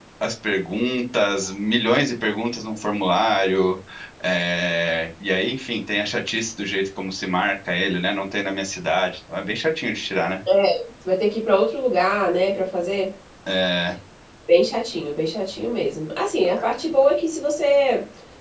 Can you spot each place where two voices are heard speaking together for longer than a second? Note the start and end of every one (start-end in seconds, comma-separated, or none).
none